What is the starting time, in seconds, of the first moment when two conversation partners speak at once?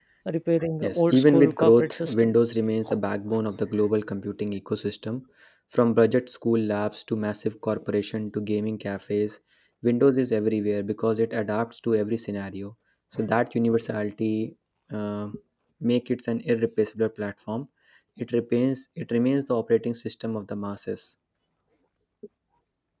1 s

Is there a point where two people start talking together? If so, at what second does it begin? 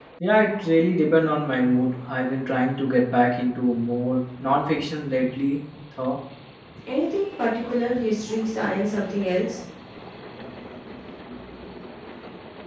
none

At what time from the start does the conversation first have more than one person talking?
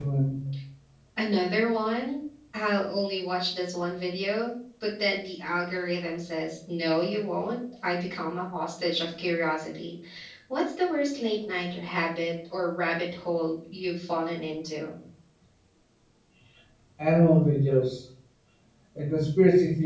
none

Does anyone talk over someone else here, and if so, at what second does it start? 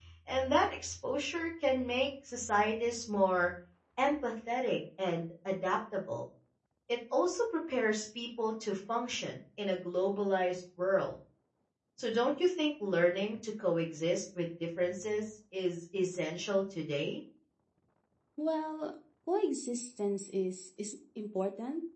none

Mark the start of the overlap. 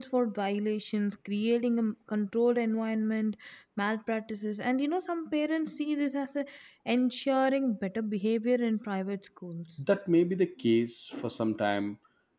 none

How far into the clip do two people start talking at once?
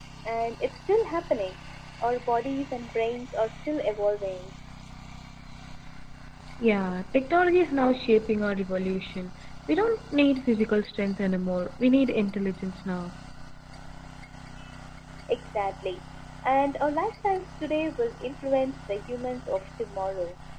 none

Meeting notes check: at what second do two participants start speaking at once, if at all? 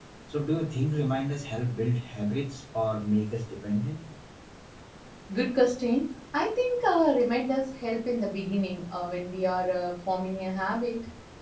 none

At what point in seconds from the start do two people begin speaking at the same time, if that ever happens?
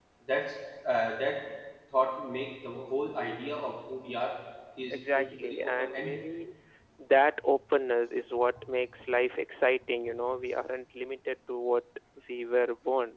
5 s

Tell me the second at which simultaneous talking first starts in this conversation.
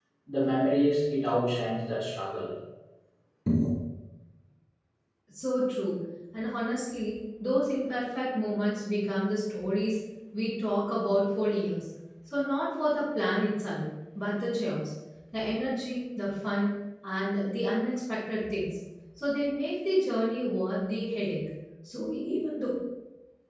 none

